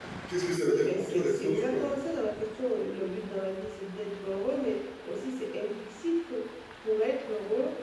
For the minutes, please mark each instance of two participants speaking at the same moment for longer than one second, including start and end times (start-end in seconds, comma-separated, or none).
0.6-1.9